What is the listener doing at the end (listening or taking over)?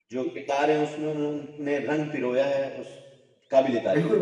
taking over